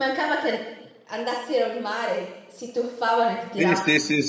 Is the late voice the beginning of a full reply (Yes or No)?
Yes